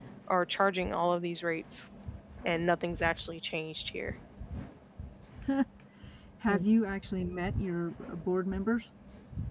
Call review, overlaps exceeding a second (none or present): none